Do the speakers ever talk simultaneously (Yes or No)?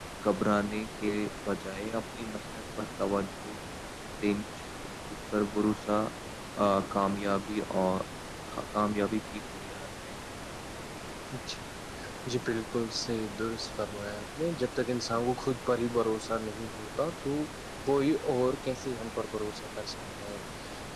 No